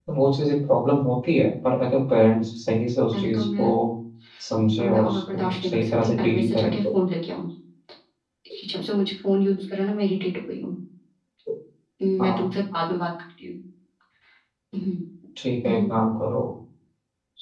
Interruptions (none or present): present